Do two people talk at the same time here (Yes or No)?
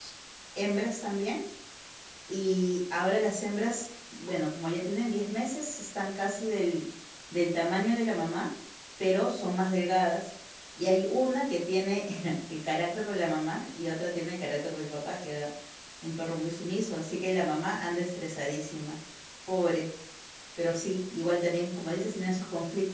No